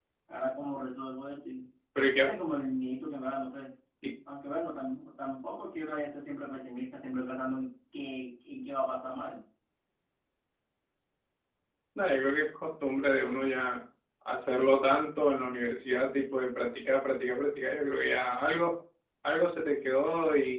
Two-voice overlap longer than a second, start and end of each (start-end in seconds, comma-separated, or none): none